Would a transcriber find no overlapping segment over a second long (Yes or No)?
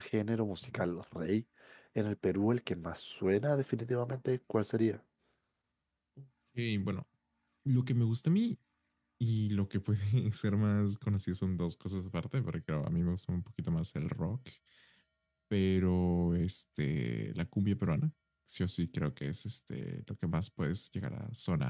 Yes